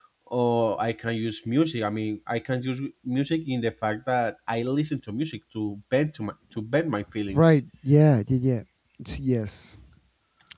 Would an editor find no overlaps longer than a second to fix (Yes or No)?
Yes